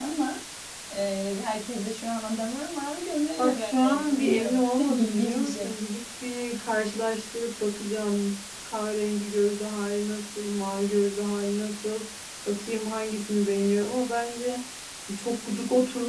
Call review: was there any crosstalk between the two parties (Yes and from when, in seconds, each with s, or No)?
Yes, from 3.4 s